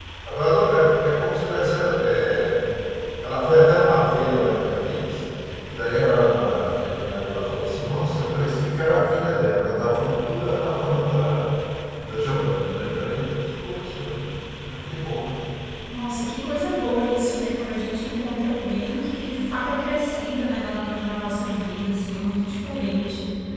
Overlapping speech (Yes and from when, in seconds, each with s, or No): No